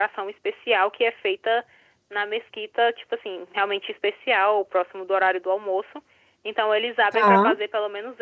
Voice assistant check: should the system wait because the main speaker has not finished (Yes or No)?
Yes